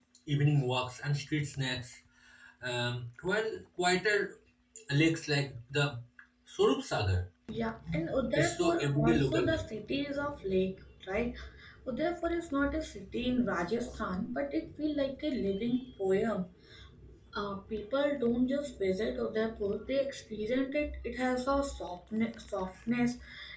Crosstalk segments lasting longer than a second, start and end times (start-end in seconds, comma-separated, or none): 8.4-9.6